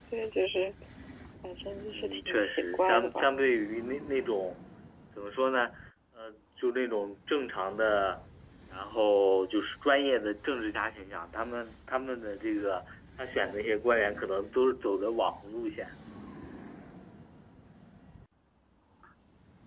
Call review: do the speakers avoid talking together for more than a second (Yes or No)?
No